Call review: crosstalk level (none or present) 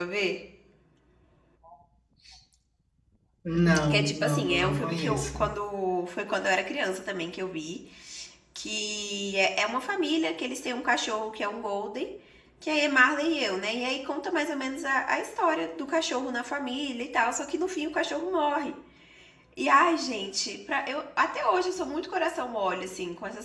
present